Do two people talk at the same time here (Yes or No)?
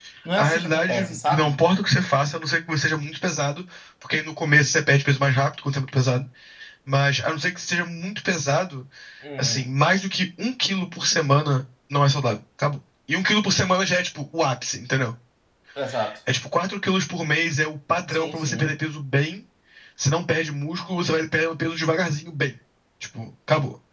Yes